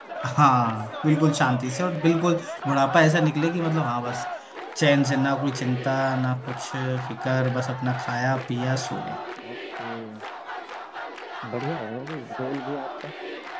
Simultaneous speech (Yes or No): No